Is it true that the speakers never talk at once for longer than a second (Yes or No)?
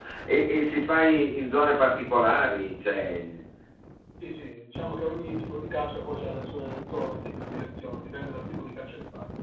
Yes